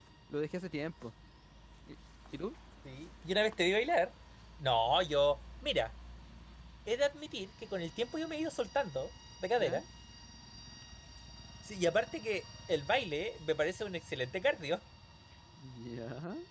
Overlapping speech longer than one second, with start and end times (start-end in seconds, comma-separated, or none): none